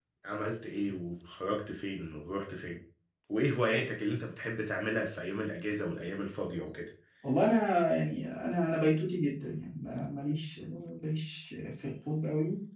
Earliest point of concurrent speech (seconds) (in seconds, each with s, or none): none